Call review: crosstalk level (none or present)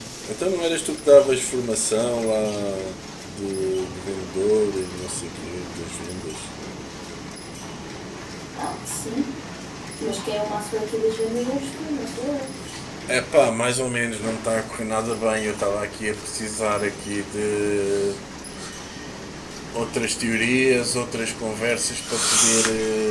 none